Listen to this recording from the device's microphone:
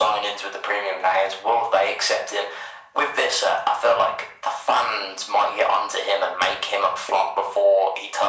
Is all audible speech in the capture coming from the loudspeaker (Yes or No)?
Yes